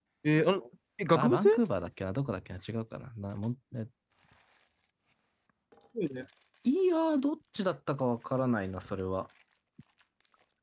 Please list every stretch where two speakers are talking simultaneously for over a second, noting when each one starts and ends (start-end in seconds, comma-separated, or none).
none